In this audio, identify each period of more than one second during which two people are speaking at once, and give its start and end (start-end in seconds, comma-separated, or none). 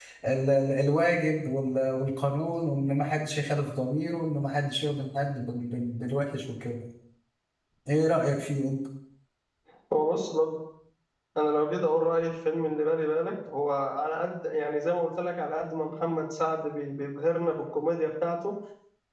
none